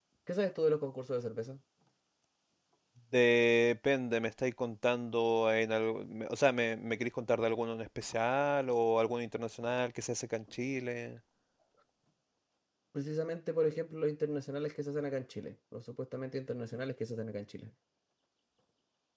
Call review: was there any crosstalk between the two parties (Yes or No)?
No